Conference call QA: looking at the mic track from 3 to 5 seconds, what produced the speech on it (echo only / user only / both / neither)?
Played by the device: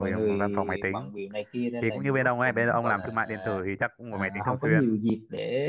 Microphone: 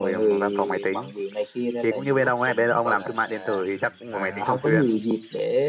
both